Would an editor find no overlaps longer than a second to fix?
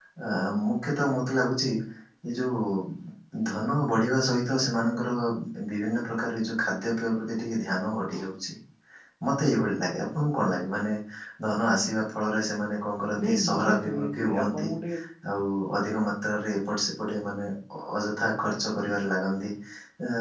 No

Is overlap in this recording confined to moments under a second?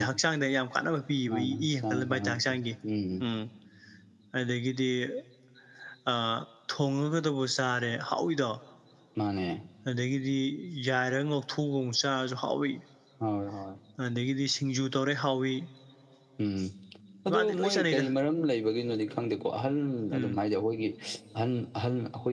No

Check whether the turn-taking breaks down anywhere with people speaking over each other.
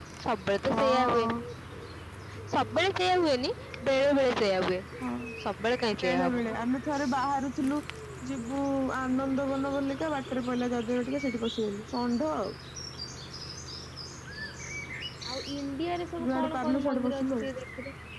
Yes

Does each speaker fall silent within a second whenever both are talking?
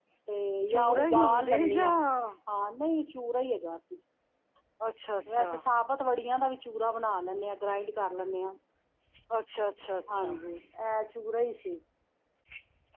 No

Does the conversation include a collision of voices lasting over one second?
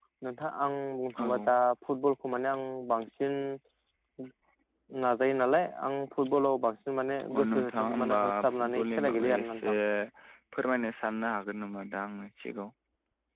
Yes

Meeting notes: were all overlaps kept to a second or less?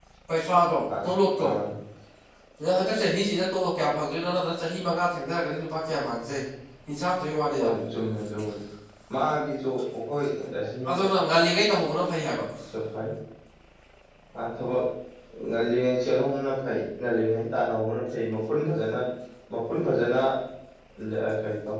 Yes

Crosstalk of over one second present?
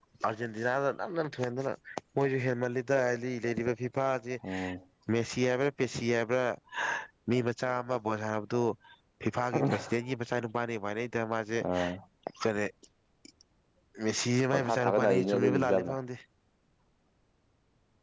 Yes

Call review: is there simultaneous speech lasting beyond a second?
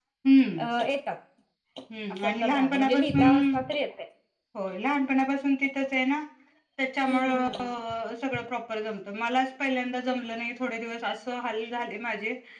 Yes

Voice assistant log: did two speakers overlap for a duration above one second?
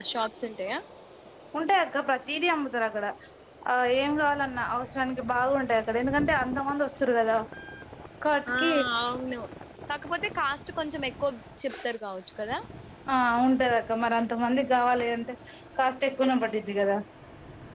No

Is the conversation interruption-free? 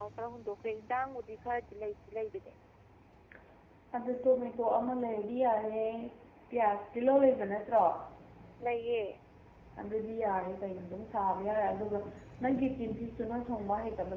Yes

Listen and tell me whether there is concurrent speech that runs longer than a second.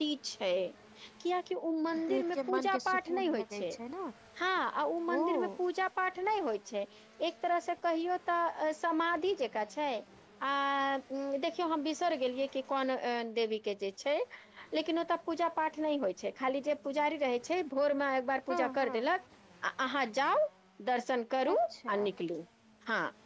Yes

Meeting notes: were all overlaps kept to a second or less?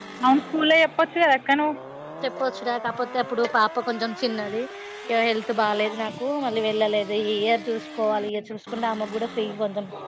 Yes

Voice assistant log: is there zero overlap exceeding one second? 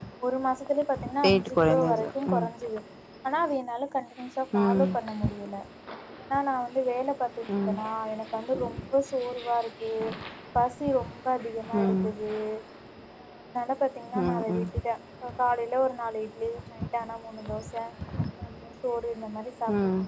No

